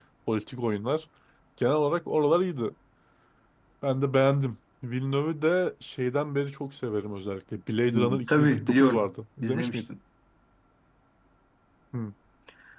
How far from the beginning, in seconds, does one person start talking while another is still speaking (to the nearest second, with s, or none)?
8 s